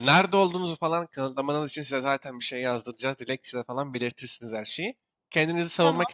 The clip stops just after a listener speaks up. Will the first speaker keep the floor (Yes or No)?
Yes